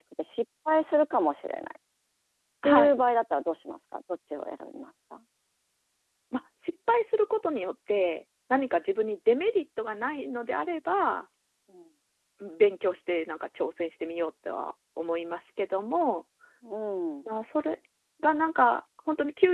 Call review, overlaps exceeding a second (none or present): none